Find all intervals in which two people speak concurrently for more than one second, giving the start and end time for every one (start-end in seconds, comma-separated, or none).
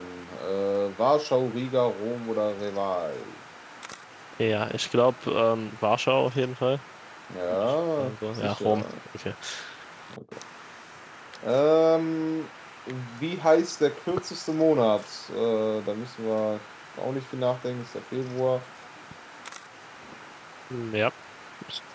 7.6-8.8